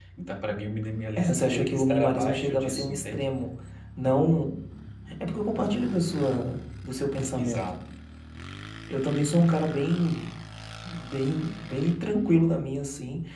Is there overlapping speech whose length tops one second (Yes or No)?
Yes